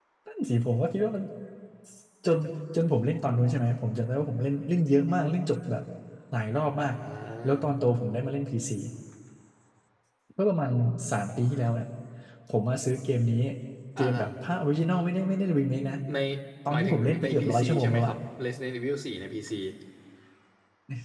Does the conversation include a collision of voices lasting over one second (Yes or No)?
Yes